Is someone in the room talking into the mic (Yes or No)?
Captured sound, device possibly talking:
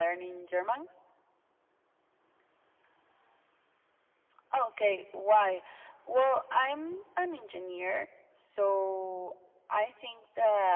No